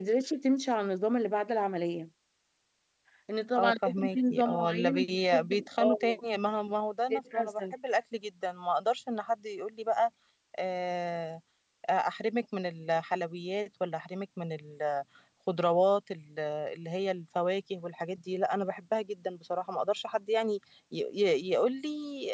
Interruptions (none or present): present